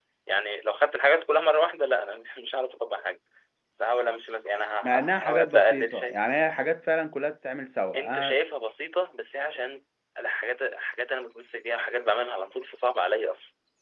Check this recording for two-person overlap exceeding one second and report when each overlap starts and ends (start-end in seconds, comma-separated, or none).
4.8-6.2